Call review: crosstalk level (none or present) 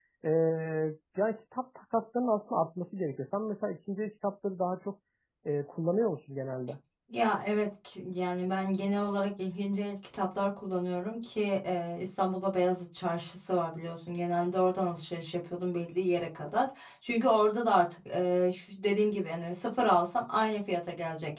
none